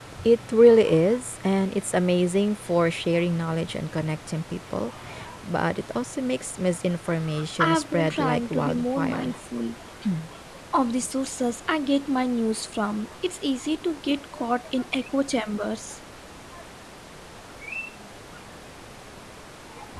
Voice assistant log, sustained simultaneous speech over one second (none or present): present